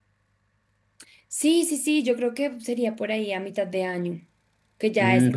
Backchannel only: No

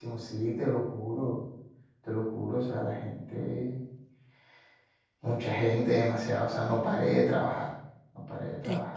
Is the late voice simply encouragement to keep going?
No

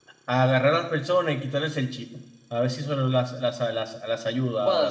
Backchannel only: No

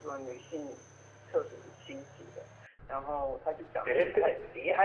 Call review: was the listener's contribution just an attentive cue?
Yes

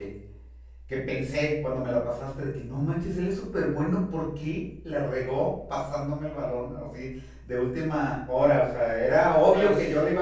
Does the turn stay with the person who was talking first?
Yes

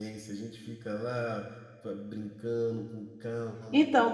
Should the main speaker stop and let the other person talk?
Yes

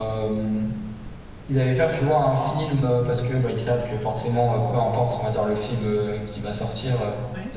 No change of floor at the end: Yes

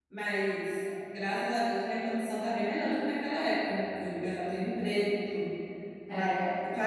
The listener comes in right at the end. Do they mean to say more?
No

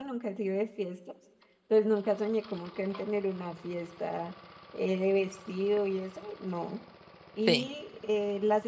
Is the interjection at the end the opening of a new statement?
No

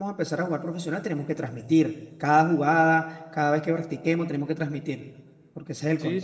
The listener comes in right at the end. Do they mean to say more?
Yes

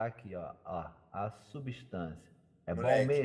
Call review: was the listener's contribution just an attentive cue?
No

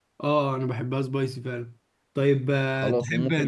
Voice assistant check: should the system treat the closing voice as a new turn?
Yes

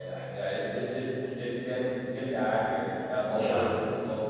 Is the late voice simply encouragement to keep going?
Yes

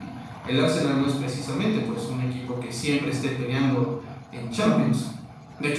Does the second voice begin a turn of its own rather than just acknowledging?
No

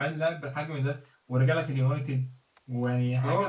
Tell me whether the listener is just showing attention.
No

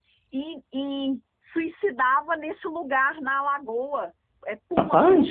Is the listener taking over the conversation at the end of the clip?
No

